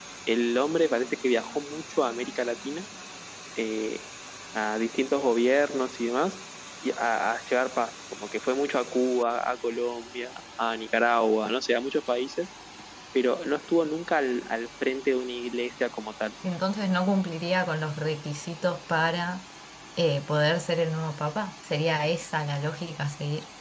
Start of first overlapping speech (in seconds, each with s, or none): none